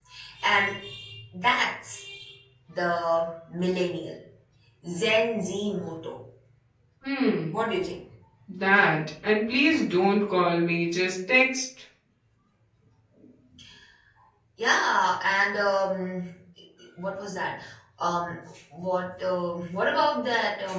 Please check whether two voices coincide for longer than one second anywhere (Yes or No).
No